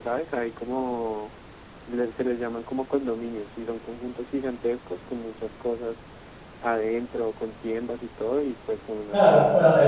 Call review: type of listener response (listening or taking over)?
taking over